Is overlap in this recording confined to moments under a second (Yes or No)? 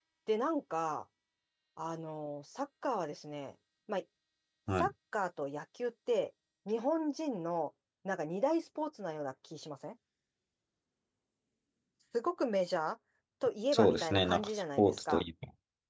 No